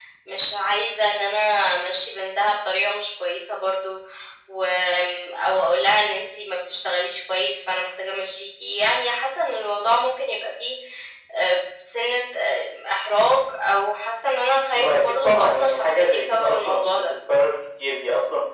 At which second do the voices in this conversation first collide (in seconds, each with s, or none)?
14.7 s